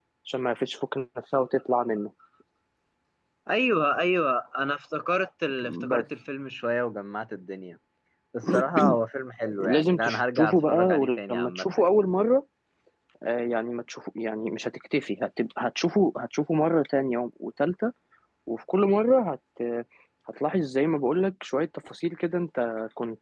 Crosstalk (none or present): present